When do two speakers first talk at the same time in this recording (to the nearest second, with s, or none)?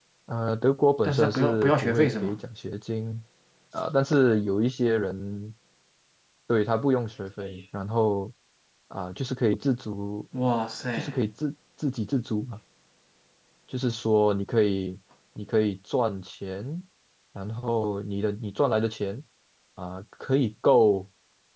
1 s